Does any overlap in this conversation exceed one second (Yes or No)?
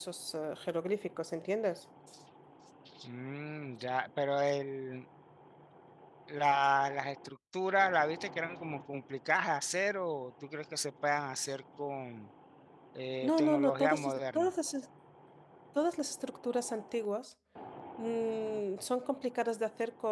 Yes